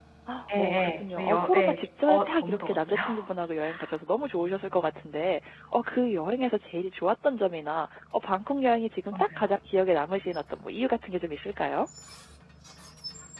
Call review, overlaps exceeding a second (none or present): present